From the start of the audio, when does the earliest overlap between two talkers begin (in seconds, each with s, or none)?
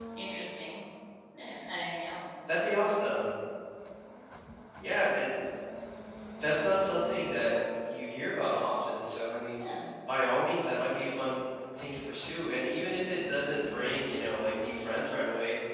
none